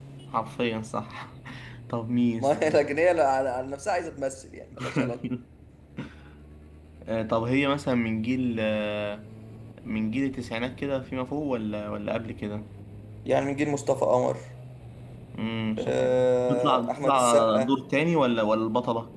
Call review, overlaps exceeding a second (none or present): present